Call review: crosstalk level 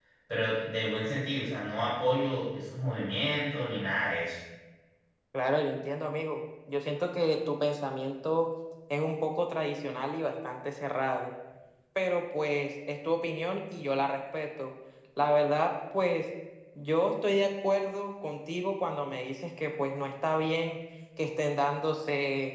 none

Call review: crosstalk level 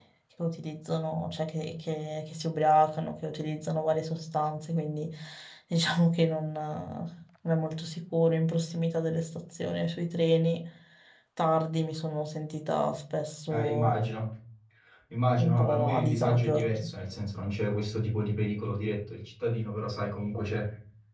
present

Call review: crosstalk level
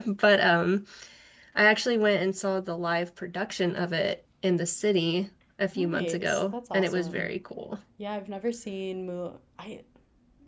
present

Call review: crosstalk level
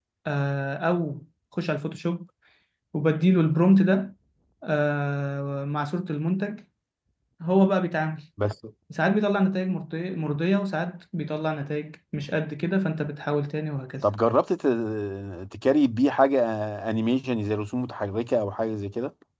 none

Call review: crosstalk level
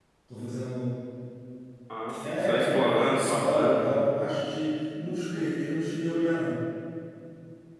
present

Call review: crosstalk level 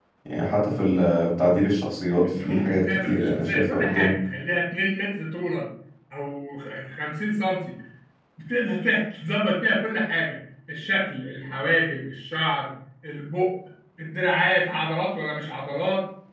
present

